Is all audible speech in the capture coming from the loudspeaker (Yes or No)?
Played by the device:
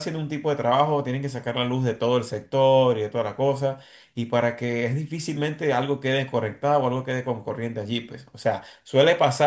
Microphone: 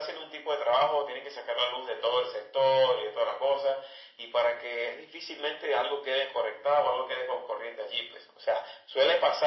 Yes